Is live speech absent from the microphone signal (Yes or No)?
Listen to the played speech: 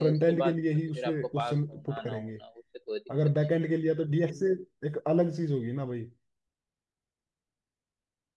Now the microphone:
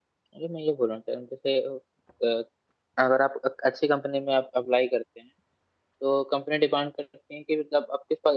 No